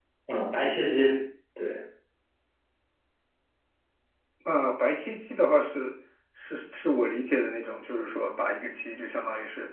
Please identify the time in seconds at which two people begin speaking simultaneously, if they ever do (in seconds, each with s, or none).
none